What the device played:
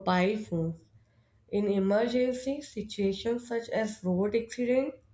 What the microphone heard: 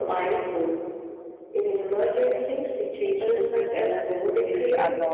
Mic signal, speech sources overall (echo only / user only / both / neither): both